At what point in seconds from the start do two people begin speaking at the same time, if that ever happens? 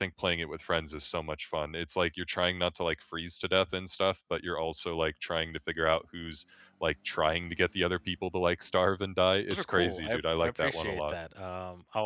9.5 s

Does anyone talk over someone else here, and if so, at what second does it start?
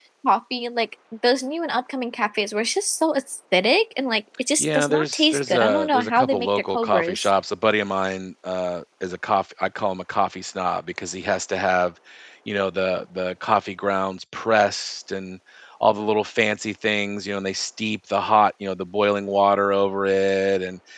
4.6 s

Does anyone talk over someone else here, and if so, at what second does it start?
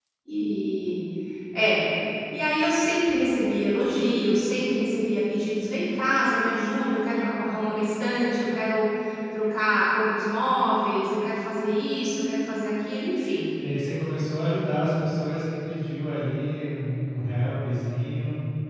none

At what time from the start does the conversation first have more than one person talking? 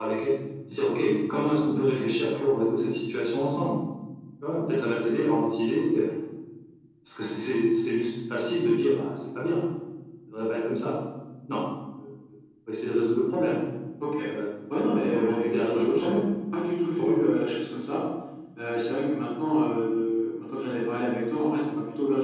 14.9 s

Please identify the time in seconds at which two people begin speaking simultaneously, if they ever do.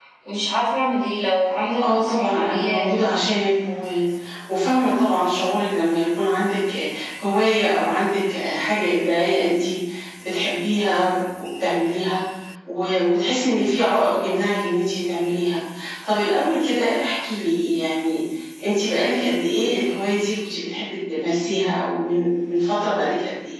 1.8 s

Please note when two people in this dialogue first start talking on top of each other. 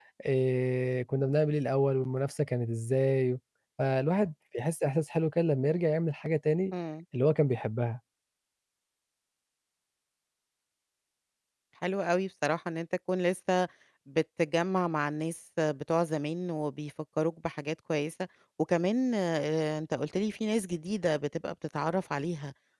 none

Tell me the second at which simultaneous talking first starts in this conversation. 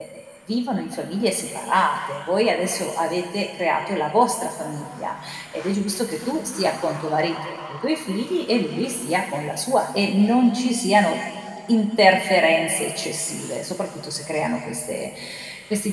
none

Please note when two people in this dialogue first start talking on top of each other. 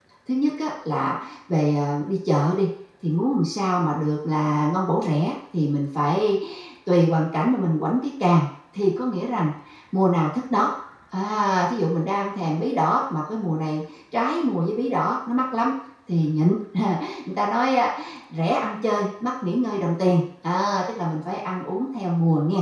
none

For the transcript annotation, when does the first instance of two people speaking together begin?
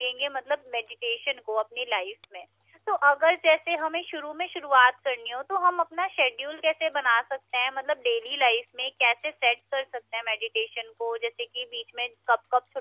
none

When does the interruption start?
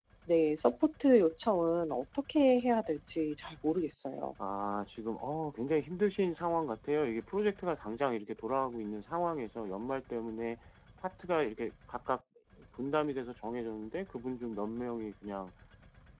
none

